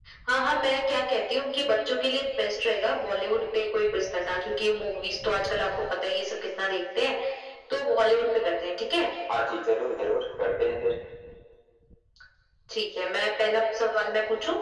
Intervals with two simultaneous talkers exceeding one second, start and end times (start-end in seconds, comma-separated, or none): none